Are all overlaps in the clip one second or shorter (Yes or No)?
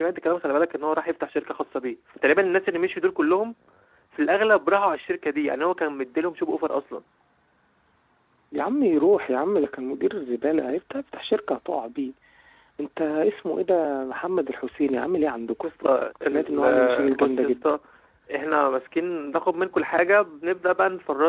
No